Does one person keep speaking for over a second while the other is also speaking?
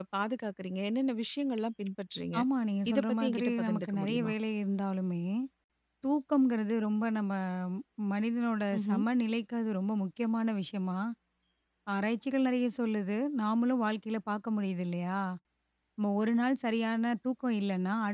Yes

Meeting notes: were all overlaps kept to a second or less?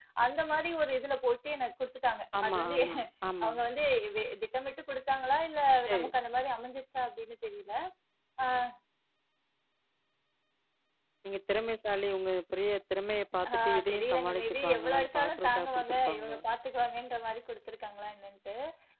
No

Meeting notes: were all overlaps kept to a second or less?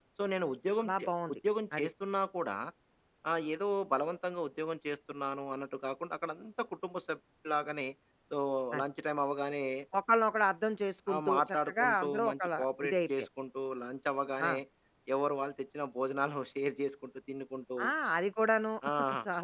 No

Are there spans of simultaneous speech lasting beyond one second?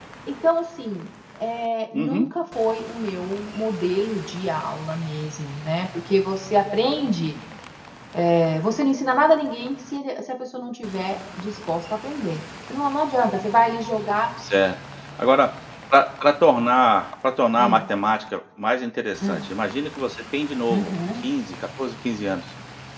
No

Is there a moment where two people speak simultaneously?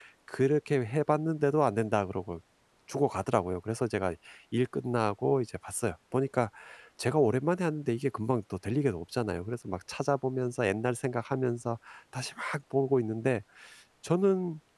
No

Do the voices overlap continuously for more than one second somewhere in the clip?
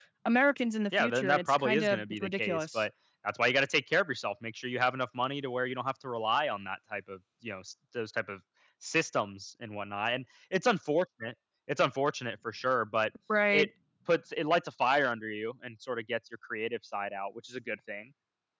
Yes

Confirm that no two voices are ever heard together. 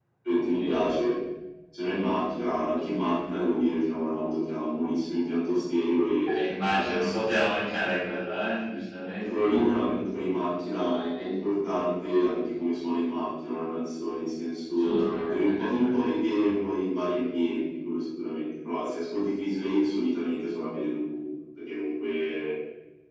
No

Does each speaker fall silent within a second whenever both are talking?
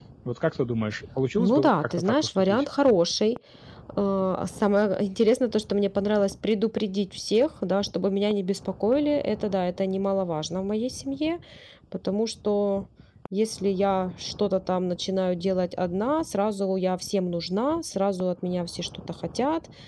No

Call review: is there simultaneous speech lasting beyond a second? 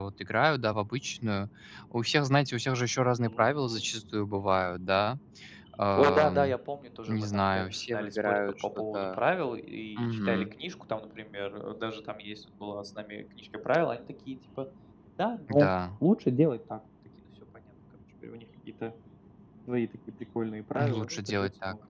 Yes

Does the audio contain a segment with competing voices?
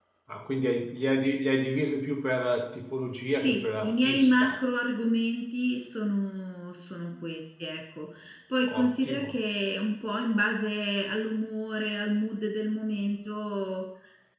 Yes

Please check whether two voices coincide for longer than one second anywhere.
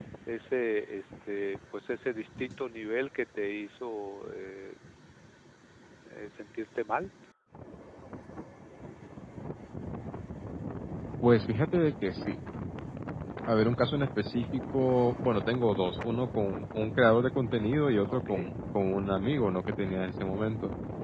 No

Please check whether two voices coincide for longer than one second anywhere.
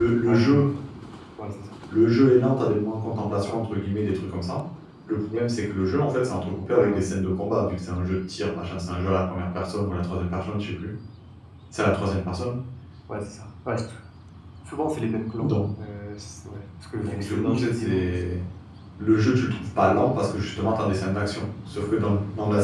Yes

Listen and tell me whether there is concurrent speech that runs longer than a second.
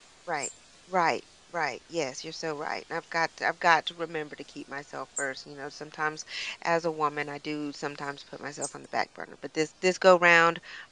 No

